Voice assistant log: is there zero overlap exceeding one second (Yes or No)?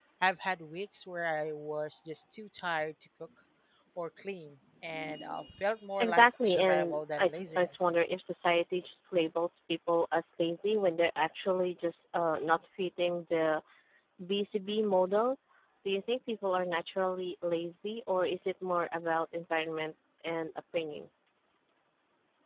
No